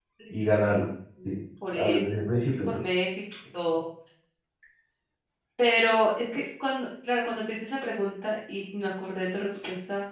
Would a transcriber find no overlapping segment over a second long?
Yes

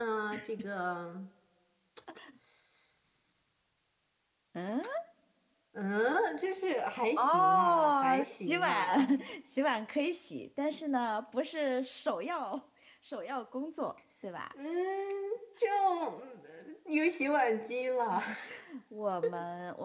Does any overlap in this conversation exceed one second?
Yes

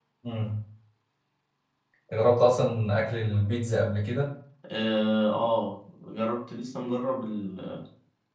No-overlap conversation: Yes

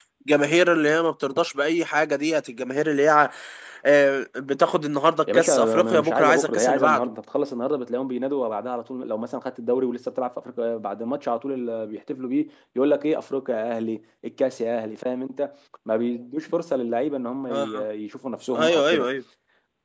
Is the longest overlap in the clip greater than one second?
Yes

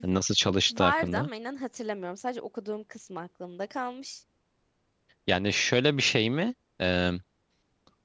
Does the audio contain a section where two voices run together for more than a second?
No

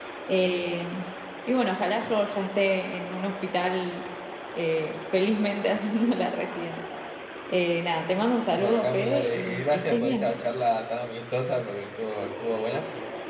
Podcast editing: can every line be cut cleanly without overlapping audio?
No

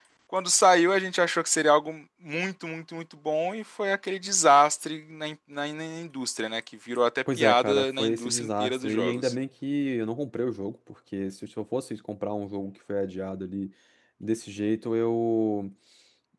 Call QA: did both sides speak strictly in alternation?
No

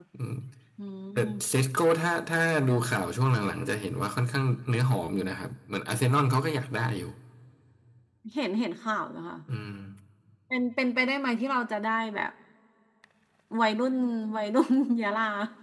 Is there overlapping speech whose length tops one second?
No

